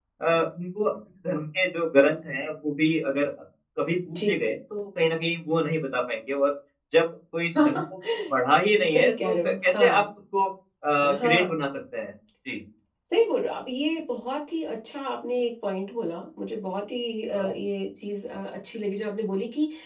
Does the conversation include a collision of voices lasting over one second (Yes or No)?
Yes